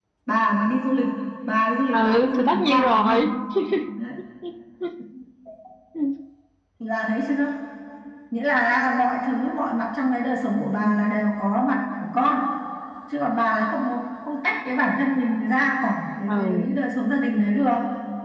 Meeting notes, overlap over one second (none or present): present